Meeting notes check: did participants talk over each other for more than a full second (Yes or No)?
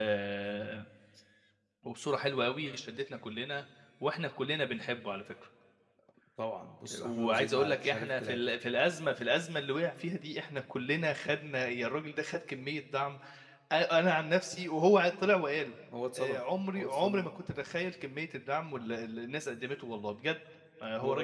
Yes